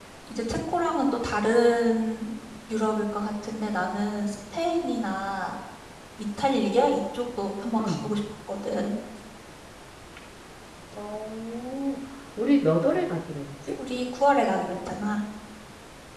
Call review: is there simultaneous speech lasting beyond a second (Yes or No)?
No